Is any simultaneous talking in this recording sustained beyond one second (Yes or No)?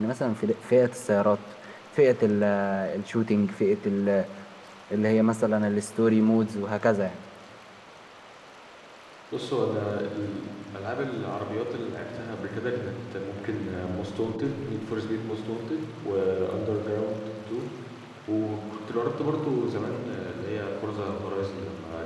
No